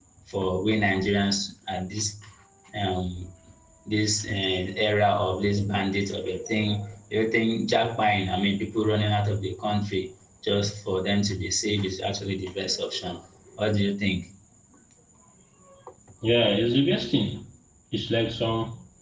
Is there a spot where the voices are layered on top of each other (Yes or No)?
No